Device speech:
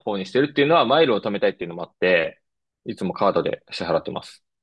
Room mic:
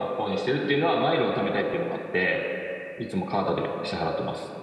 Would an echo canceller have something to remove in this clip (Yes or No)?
Yes